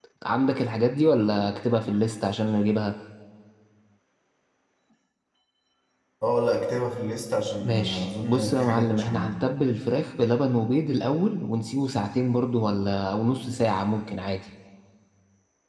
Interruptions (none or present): present